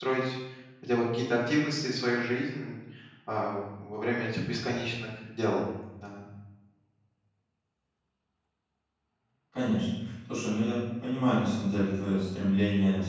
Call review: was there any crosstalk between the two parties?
No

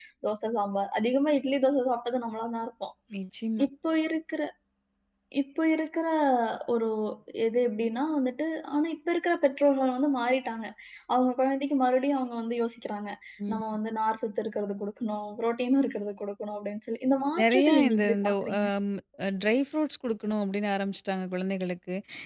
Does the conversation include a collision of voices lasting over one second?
Yes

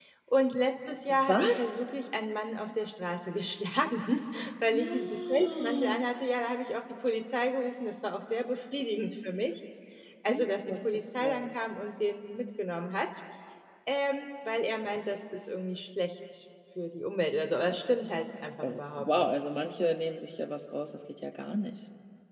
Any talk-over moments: Yes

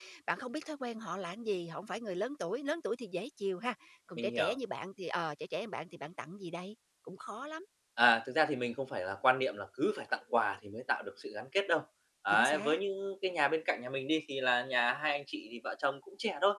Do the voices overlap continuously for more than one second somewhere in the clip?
No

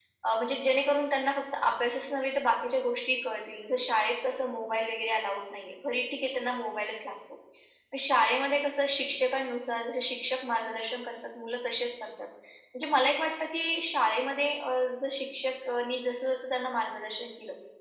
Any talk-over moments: No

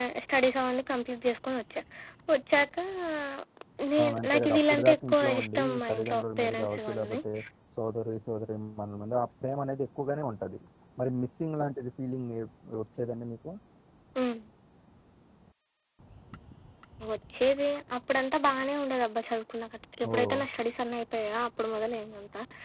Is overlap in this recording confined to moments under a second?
No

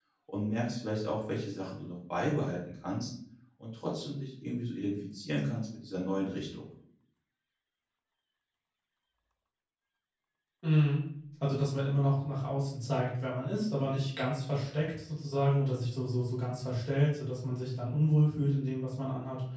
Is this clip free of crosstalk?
Yes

